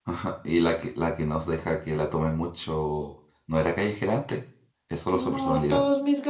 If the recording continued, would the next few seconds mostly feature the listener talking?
Yes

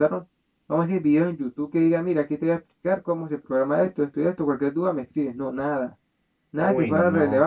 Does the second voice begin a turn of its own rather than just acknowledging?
No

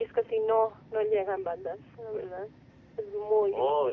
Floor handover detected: Yes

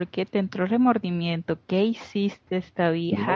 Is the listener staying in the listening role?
No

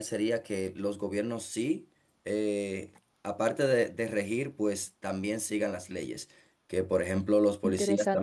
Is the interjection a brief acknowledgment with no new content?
Yes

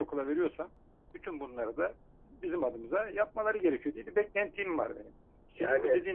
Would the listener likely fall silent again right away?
Yes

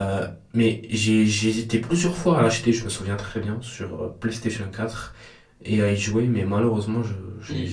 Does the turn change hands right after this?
Yes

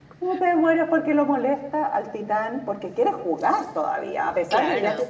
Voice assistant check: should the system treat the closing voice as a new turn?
No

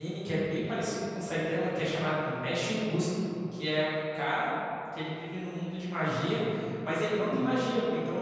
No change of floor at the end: Yes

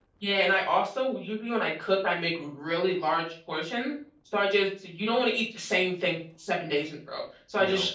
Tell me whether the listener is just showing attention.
Yes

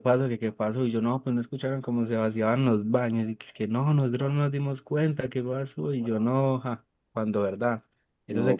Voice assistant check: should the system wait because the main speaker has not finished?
Yes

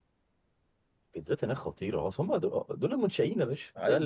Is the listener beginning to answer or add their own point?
Yes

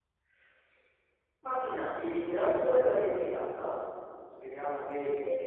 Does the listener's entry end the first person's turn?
No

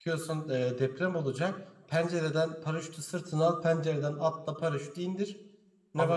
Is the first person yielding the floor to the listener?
Yes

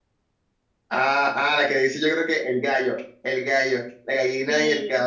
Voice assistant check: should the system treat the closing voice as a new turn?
No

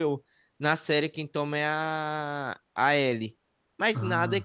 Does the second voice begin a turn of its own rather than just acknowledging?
No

